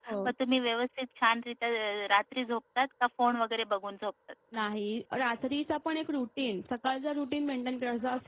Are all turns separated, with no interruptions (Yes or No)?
Yes